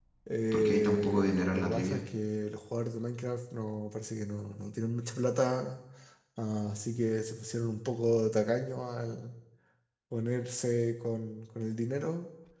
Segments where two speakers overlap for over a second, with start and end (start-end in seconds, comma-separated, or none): 0.5-2.0